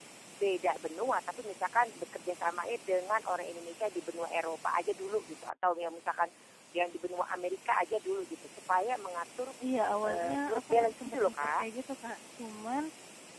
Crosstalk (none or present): present